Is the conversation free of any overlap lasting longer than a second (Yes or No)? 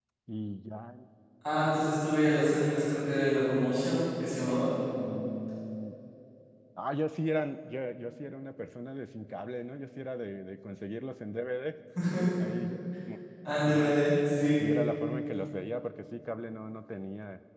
Yes